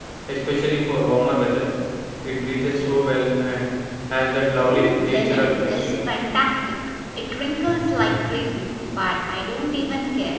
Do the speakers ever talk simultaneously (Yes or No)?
Yes